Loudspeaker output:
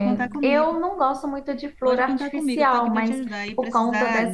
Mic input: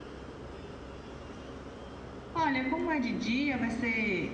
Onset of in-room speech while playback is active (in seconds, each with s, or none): 2.3 s